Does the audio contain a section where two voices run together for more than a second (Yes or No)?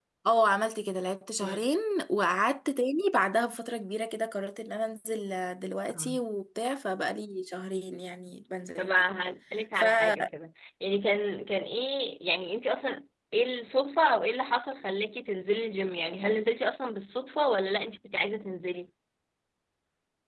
No